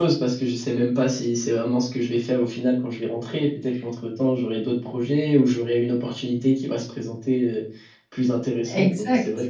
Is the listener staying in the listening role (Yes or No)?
No